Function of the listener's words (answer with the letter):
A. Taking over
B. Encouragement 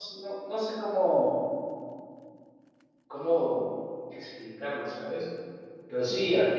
B